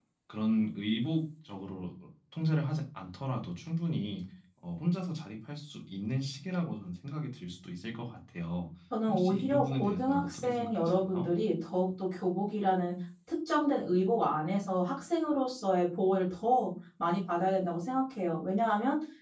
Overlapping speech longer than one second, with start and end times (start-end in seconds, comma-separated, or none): 9.1-11.3